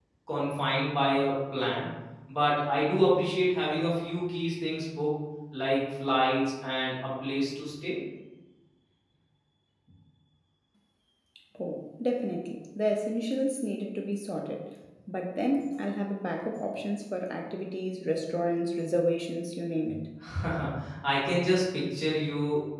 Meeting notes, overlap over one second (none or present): none